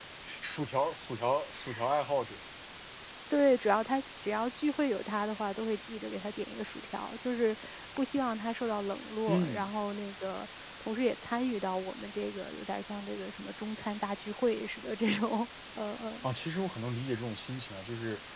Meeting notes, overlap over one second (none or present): none